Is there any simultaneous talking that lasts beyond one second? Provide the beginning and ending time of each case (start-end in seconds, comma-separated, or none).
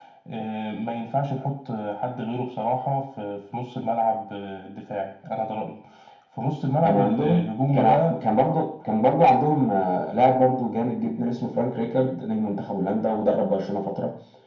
6.8-8.2